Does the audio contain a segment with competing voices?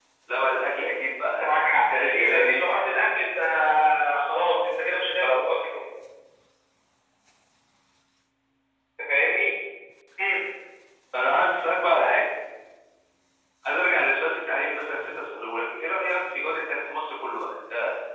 Yes, from 1.3 s

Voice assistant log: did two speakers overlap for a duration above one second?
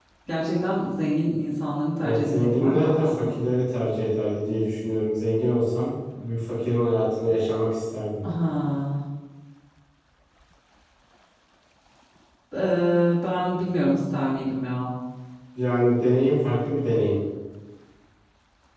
Yes, from 2.0 s

